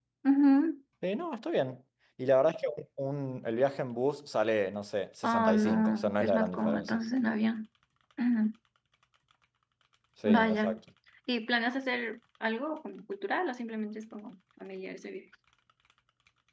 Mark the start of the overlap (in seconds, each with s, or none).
5.2 s